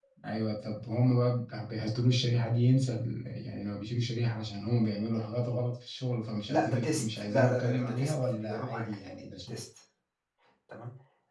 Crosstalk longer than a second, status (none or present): present